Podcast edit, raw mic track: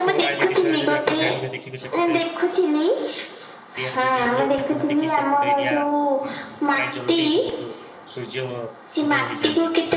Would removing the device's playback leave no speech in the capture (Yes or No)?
No